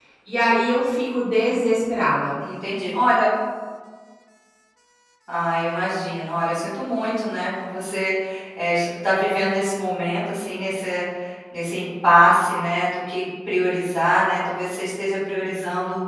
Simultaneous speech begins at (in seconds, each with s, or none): none